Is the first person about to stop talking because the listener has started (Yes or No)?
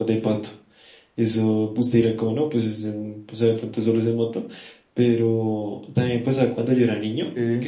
No